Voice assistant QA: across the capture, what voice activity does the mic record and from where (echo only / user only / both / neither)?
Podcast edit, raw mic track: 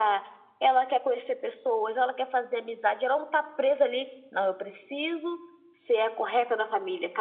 echo only